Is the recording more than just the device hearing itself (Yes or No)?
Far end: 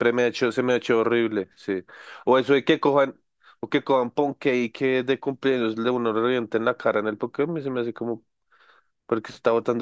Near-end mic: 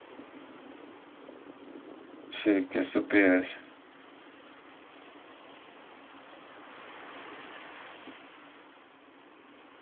Yes